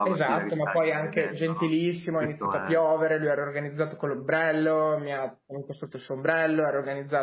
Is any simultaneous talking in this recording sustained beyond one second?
Yes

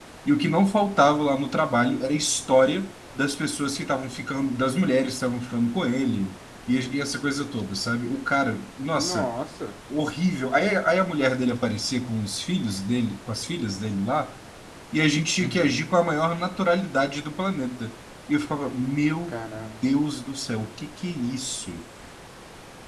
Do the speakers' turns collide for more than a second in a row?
No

